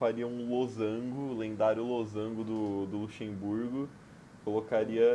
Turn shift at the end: No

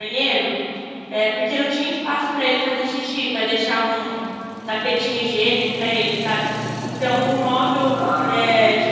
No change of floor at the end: Yes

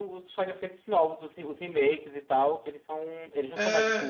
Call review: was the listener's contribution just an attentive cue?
No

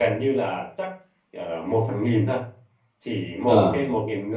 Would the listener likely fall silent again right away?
Yes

